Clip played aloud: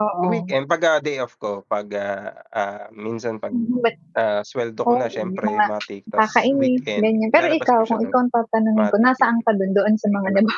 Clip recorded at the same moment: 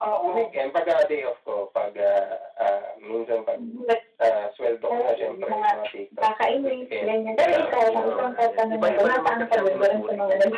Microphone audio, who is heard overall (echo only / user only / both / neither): both